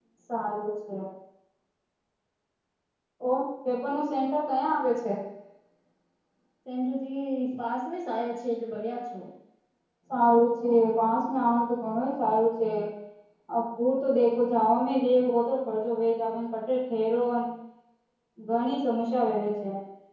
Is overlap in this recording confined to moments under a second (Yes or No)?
Yes